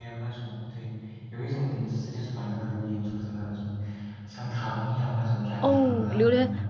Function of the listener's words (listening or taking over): taking over